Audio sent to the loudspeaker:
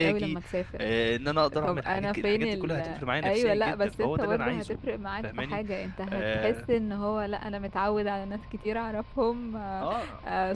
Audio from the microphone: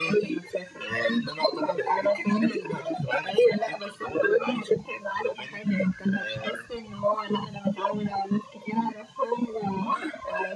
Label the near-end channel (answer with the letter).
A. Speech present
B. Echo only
B